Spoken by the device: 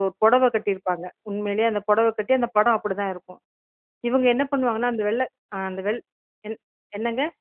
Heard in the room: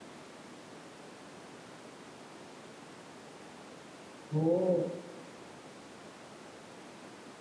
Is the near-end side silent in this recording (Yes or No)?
No